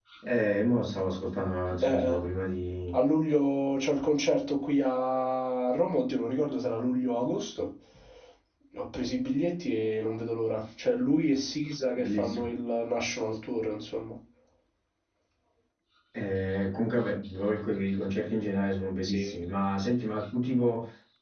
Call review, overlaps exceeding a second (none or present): none